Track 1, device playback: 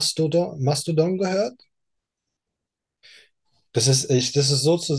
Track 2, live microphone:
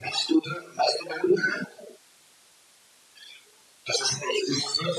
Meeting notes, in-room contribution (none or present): none